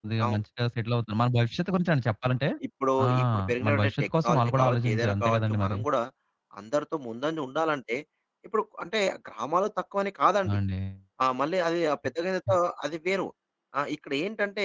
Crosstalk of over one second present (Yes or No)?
Yes